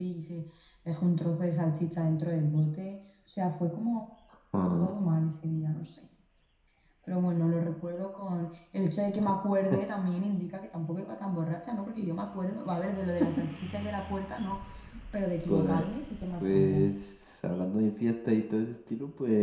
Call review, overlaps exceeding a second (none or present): none